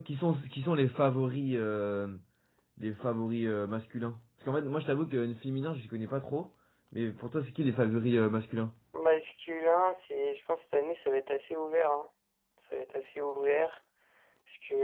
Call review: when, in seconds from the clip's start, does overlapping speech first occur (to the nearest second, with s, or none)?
none